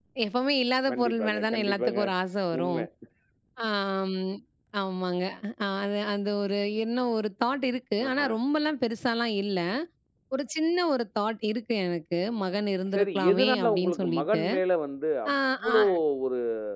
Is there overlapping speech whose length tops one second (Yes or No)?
Yes